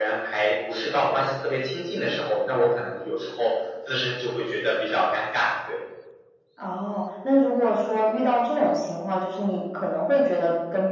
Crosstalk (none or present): none